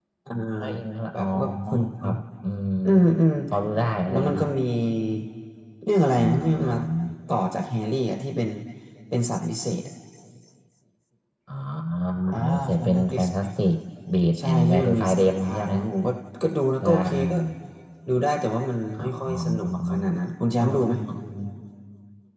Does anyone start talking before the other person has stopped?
Yes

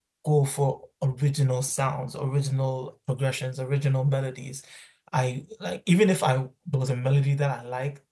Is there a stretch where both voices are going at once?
No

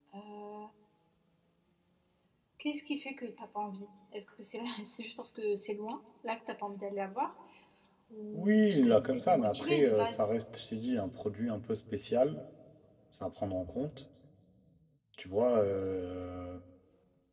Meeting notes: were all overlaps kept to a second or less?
No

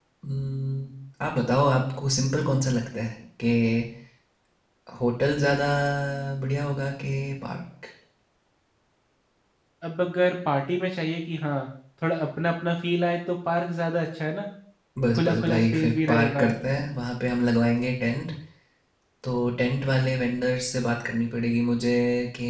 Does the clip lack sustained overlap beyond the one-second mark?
No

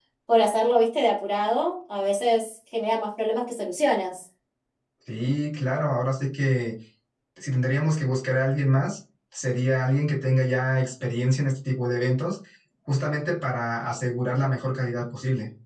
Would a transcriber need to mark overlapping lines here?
No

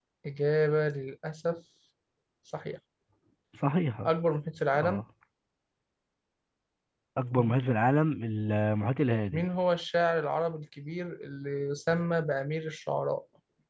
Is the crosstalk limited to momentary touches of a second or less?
Yes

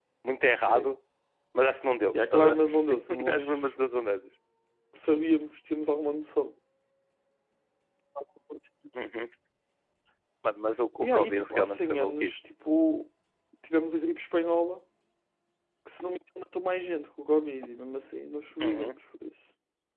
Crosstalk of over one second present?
Yes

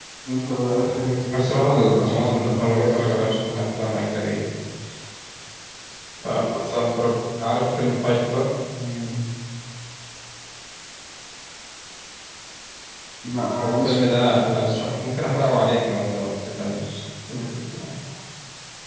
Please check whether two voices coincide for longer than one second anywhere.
Yes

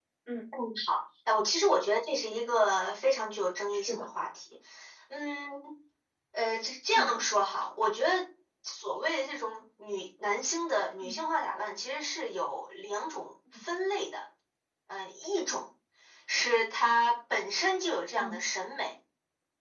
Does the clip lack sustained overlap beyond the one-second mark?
Yes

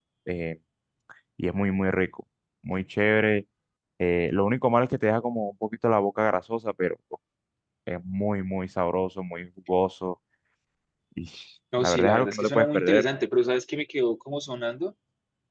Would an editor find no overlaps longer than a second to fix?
No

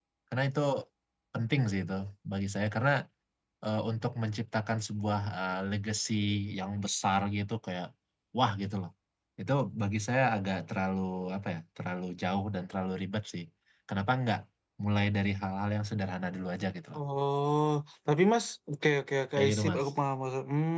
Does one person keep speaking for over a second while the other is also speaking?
No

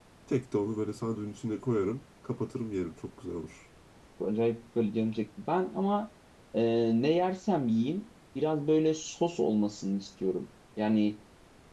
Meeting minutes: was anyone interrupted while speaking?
No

